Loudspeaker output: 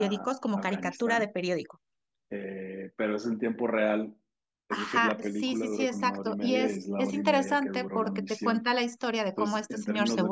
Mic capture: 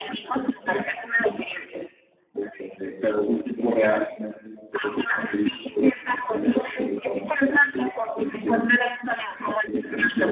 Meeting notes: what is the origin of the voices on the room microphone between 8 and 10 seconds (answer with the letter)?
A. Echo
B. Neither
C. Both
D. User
A